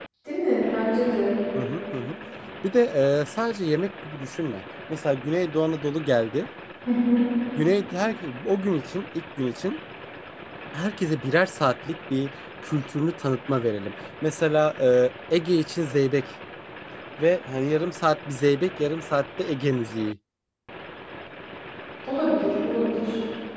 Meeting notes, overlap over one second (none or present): none